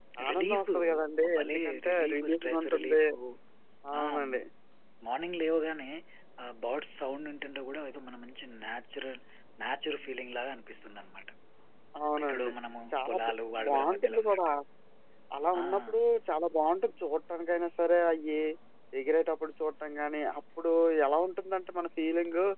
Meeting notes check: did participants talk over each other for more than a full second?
Yes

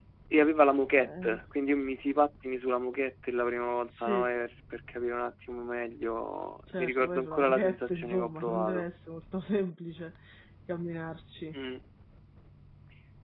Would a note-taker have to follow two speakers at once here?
Yes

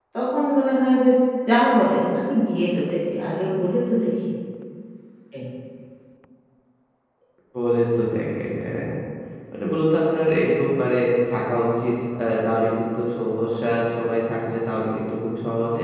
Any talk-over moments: No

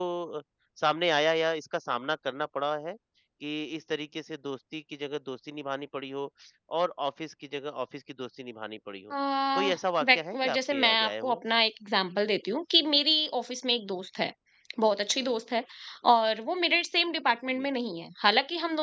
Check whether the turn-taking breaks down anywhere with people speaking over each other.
Yes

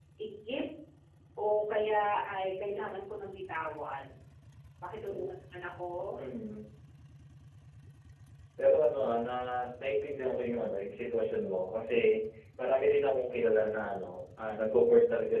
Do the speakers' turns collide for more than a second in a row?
No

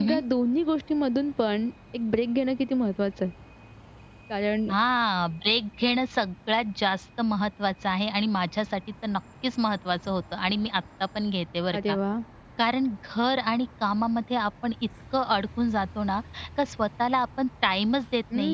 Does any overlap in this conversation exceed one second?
No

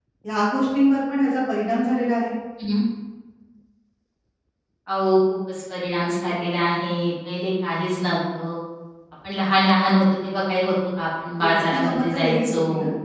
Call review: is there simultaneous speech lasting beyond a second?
Yes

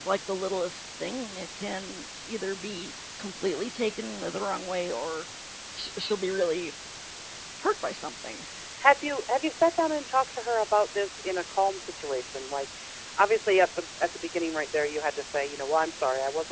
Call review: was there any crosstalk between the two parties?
No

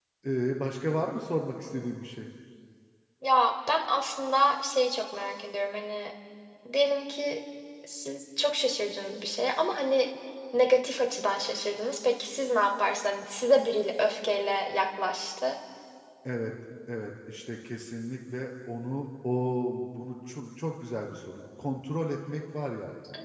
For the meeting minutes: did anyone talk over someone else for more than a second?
No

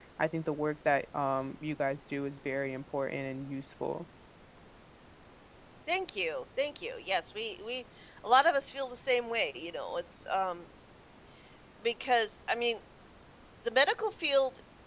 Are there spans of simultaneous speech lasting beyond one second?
No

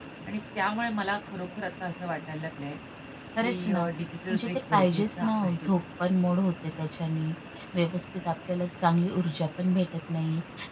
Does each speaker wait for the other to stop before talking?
No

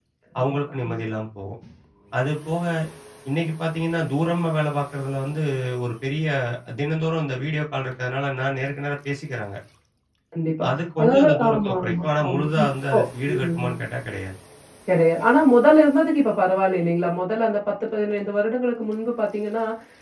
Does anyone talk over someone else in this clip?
Yes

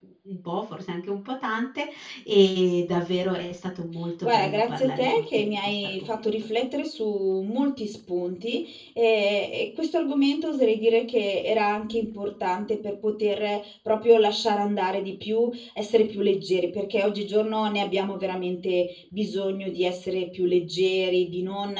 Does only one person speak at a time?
No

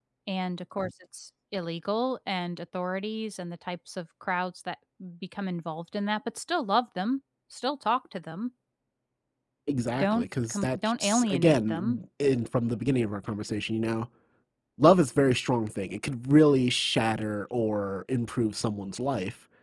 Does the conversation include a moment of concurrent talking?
Yes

